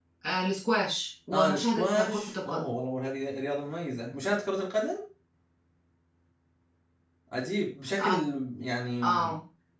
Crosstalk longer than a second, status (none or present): present